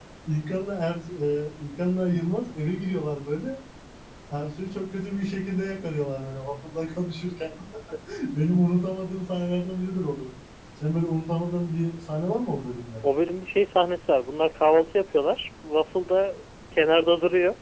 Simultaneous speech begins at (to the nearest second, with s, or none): none